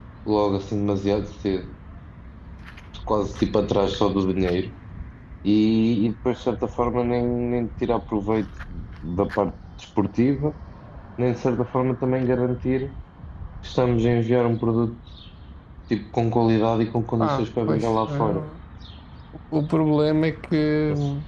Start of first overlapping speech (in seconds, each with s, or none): 17.2 s